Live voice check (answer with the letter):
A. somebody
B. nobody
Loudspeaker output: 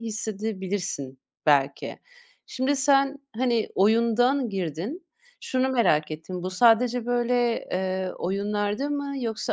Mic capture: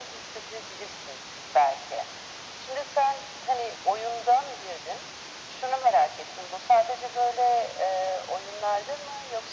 B